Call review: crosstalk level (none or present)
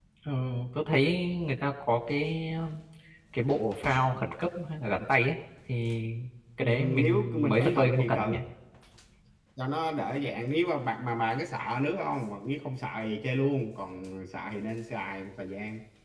present